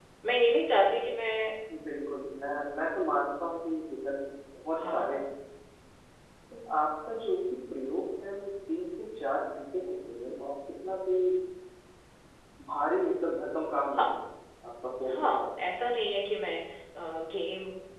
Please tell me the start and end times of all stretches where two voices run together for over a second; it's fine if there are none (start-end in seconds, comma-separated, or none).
none